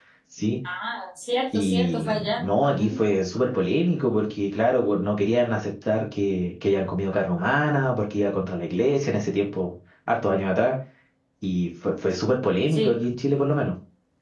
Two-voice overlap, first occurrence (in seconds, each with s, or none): 1.5 s